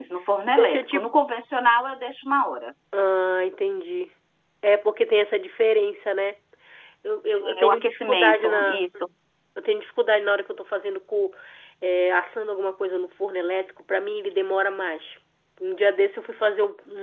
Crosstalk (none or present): present